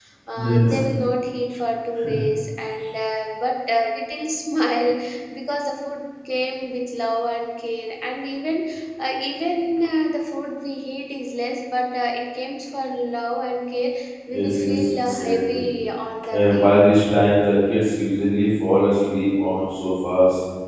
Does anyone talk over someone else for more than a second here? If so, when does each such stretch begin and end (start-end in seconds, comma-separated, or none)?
14.4-15.6